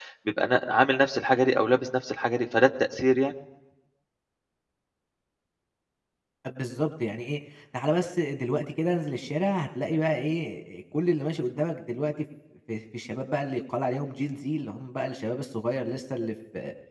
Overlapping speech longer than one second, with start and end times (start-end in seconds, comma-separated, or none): none